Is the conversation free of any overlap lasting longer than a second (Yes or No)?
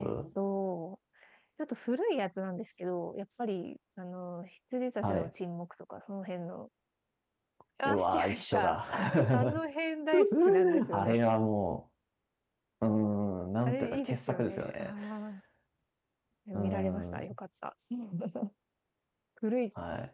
No